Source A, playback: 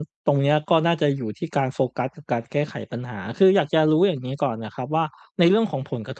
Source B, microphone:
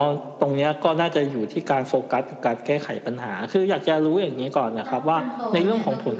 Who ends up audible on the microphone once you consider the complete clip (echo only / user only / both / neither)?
both